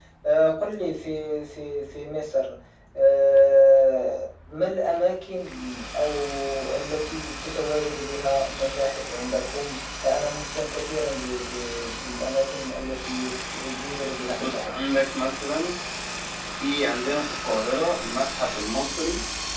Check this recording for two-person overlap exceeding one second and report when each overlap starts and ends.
none

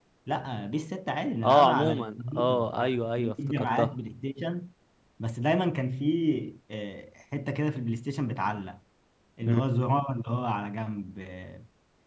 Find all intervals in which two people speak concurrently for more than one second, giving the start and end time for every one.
1.4-4.0

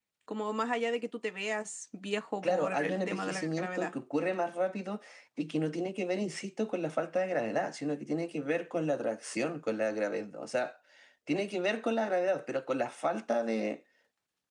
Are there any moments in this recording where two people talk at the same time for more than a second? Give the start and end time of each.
2.4-3.9

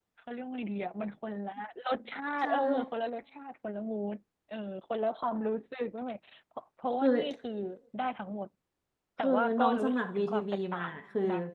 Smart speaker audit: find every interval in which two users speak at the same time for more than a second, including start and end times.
9.2-10.9

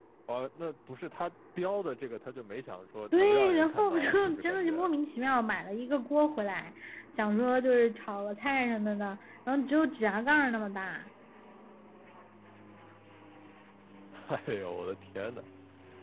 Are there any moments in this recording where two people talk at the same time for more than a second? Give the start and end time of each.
3.1-5.0

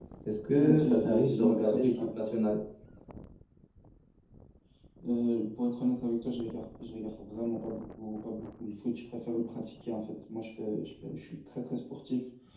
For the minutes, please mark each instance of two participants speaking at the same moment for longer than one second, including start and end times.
0.6-2.0

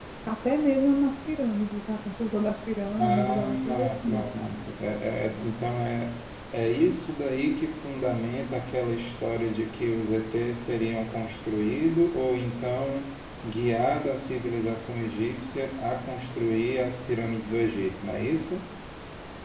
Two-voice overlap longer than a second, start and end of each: 3.0-4.2

